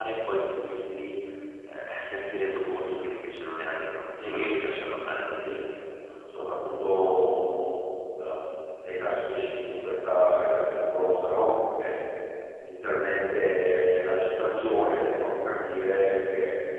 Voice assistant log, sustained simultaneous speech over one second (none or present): none